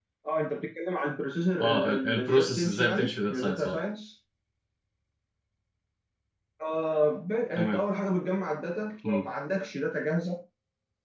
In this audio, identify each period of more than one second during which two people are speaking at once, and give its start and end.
1.6-3.8

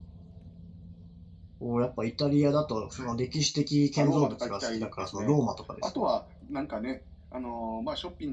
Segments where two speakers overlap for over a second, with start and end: 4.0-5.3

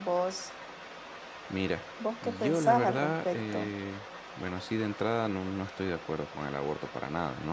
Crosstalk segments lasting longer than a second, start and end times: 2.2-3.7

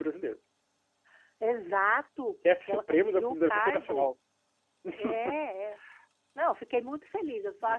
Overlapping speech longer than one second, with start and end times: 2.4-4.1

